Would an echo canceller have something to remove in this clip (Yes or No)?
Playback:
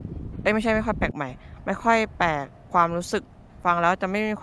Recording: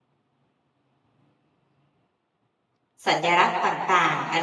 No